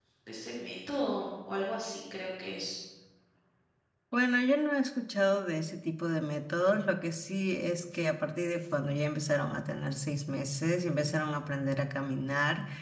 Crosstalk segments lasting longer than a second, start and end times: none

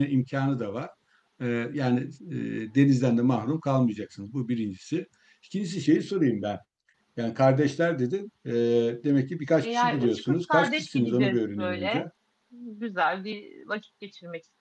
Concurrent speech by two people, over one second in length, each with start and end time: 9.6-12.1

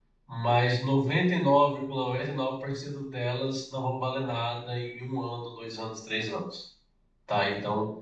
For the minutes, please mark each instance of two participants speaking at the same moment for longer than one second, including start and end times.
none

